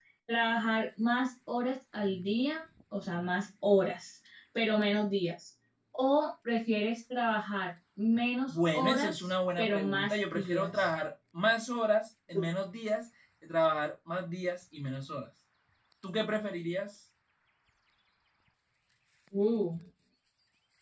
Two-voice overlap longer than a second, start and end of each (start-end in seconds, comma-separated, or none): 8.5-10.9